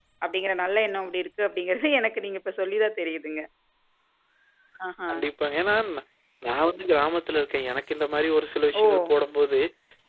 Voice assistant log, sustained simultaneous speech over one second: none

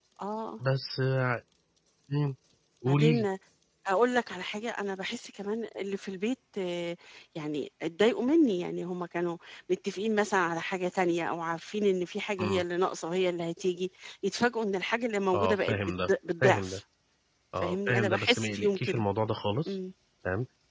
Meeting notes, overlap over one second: present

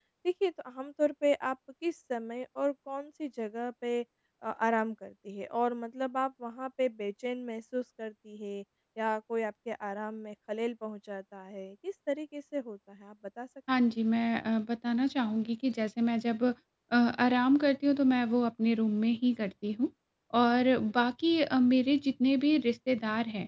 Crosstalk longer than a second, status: none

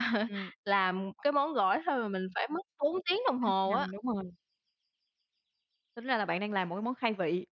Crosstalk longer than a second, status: none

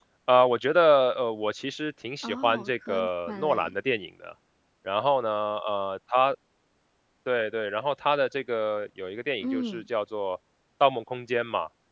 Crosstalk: present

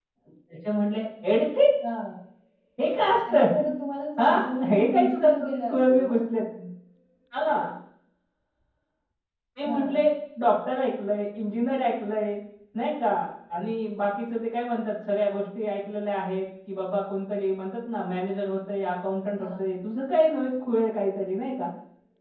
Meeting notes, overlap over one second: present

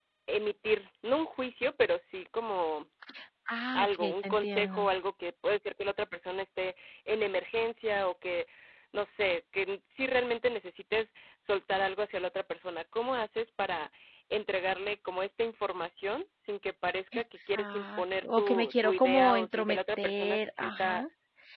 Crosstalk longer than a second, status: present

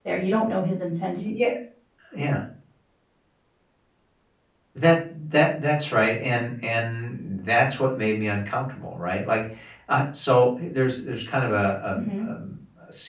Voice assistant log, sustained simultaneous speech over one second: none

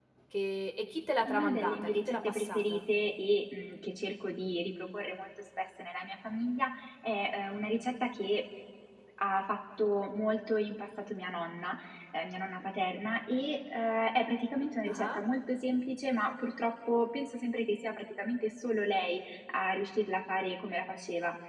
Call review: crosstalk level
present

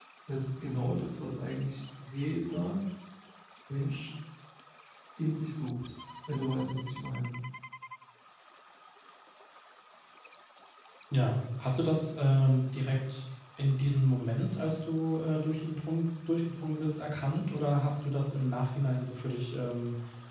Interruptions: none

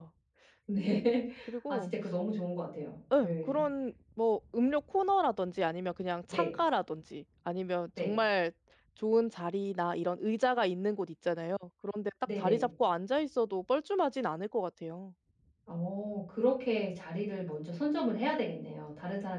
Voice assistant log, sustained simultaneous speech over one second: none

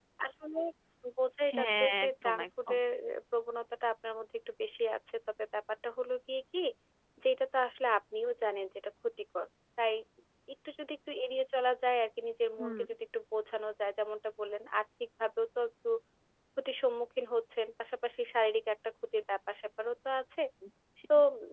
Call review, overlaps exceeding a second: present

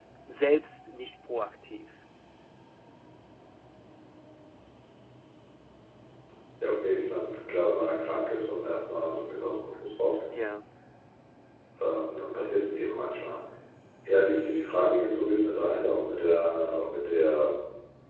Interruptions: none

